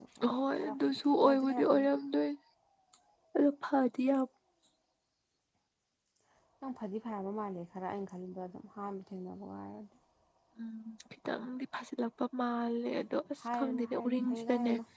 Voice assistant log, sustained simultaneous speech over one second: present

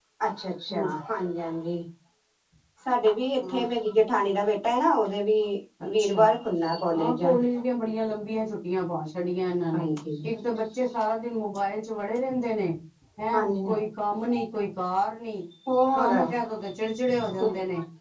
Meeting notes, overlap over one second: none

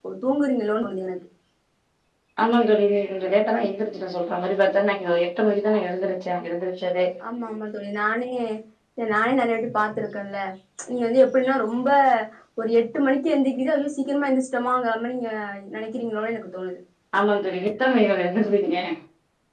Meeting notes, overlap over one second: none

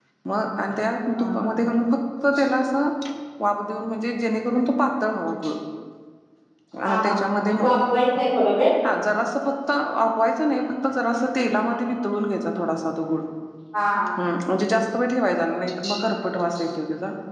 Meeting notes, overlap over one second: none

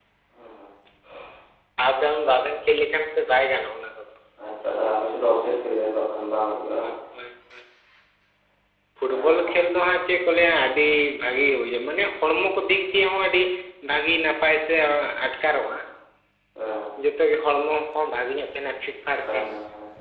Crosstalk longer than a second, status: none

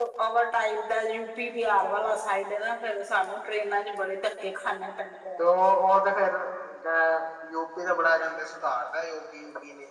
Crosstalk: none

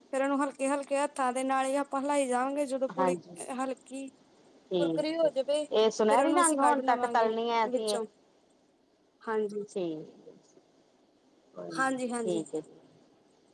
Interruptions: present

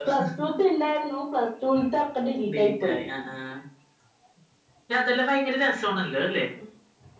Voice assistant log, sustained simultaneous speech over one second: none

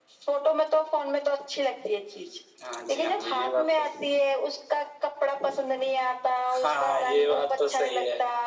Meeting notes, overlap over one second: present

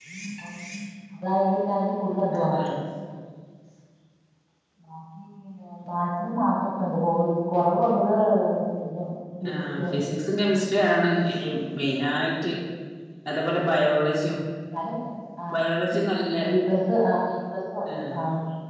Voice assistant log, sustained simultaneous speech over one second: none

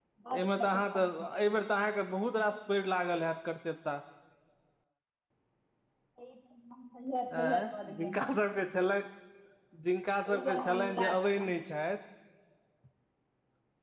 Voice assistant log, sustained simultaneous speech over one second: present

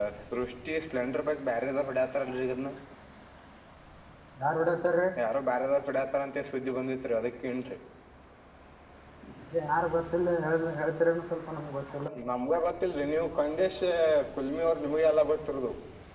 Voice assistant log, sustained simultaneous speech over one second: none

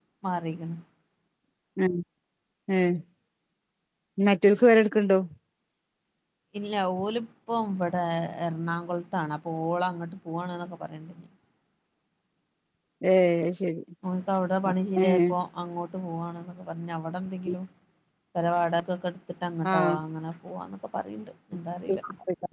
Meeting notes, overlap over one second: none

